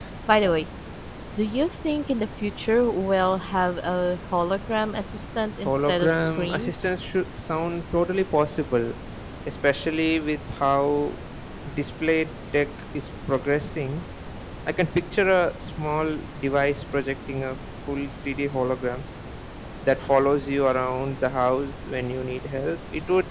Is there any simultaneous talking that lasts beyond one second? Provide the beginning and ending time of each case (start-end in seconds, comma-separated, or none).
5.6-6.9